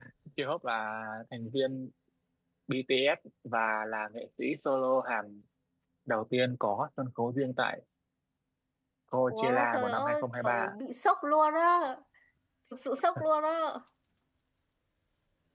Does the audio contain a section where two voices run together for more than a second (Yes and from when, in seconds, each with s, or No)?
Yes, from 9.3 s